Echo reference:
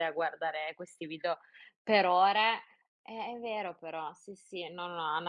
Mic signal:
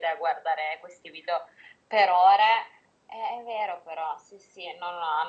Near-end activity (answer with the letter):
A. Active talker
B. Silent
B